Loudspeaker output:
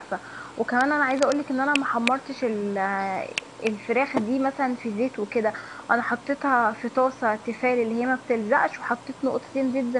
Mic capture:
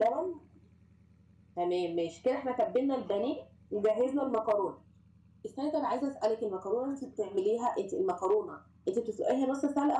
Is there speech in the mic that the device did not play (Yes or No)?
Yes